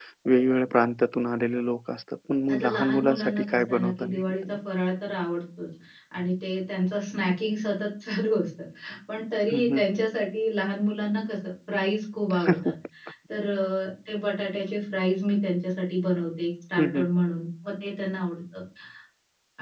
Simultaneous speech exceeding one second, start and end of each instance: 2.5-4.6

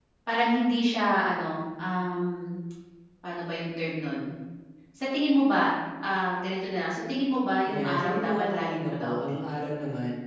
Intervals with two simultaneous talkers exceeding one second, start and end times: 7.6-9.4

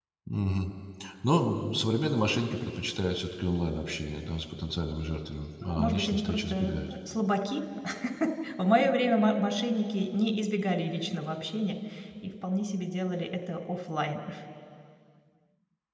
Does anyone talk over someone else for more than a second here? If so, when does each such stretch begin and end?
5.6-6.9

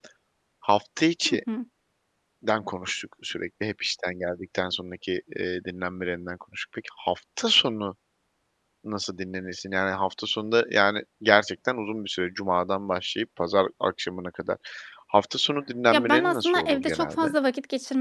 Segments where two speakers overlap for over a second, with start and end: 15.9-17.3

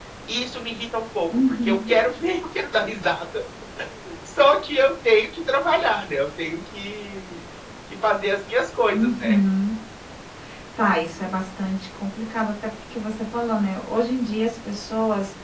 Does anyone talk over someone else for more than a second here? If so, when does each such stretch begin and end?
none

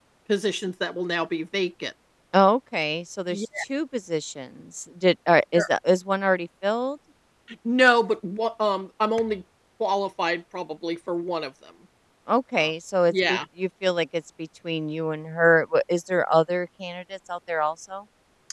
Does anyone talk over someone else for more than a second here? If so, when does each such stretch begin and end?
none

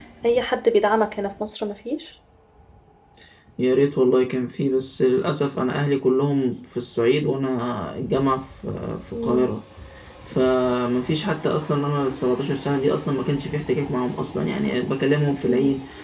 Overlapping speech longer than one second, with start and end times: none

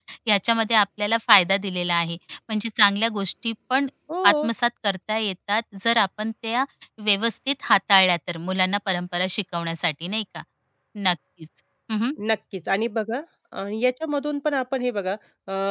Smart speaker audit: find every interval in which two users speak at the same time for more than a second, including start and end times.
none

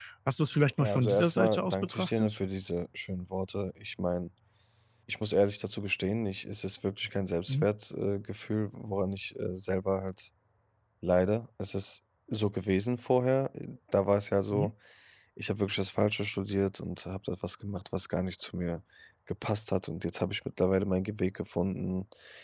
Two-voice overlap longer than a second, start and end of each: 0.8-2.4

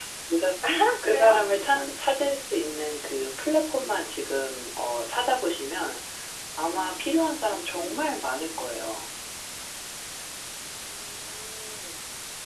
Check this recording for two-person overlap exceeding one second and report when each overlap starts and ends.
none

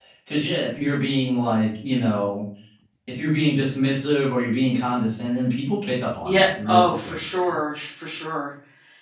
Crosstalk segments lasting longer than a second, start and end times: 6.2-7.5

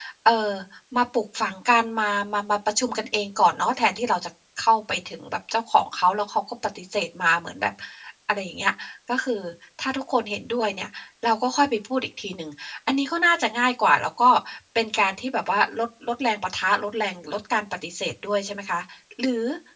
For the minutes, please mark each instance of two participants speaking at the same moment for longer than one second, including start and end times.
none

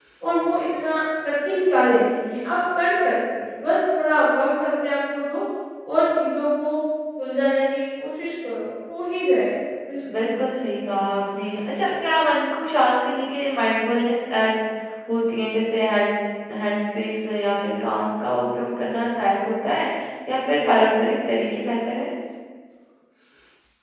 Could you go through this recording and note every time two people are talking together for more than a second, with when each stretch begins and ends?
none

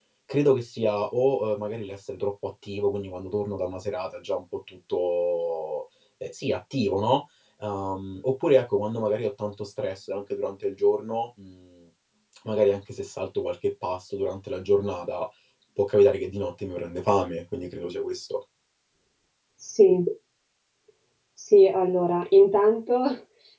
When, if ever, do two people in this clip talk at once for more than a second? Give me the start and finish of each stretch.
none

